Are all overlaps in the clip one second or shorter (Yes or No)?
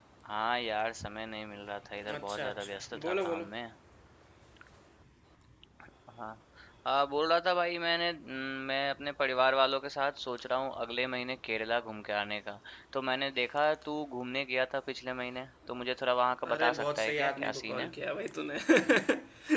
No